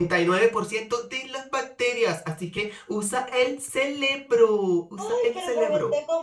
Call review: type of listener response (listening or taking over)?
taking over